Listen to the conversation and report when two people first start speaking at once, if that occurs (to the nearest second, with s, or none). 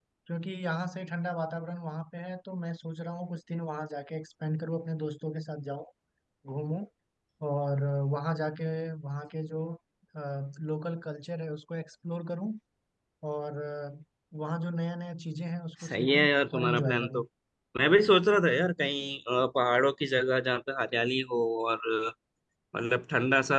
16 s